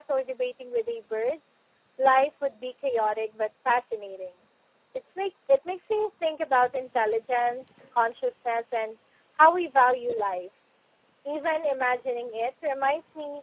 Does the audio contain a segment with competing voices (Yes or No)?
No